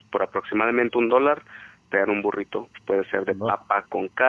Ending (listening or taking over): listening